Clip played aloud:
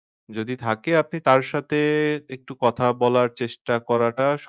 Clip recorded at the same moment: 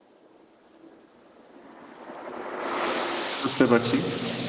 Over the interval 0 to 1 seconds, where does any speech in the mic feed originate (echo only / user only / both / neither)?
neither